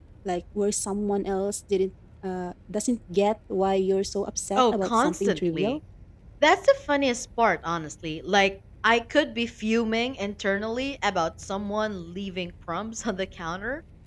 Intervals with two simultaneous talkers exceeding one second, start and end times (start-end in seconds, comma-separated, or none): 4.6-5.8